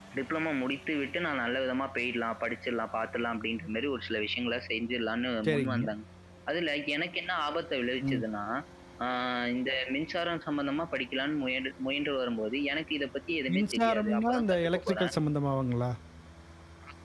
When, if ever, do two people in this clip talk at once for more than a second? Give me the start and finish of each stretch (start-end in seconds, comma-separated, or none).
13.5-15.1